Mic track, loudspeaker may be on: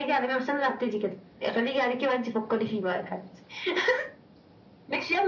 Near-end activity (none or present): none